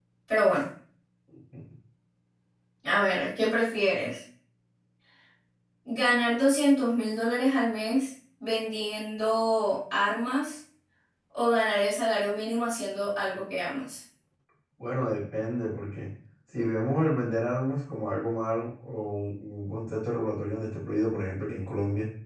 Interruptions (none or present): none